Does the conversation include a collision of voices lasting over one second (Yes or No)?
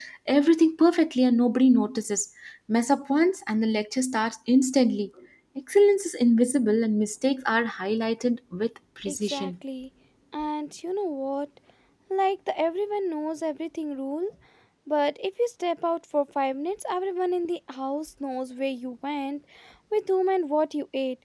No